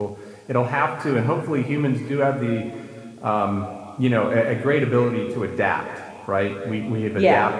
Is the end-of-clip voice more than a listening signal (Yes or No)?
No